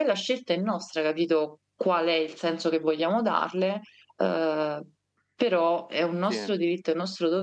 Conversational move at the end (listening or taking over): listening